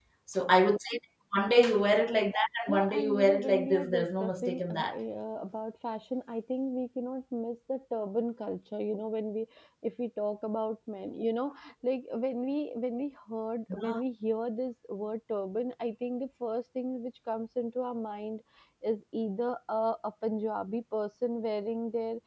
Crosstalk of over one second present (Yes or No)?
Yes